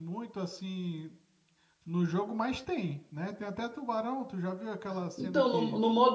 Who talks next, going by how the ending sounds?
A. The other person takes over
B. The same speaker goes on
A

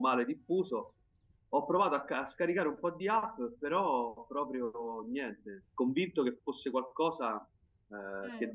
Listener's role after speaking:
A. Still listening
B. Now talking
A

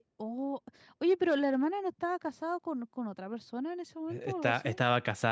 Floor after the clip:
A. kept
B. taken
B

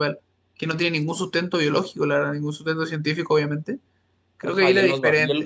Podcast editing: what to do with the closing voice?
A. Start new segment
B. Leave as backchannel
A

